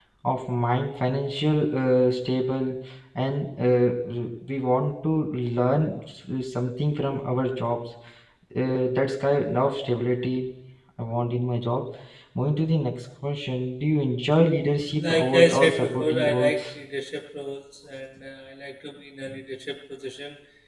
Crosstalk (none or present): present